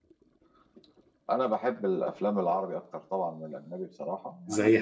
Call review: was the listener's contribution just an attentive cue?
Yes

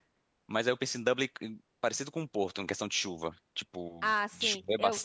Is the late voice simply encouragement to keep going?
No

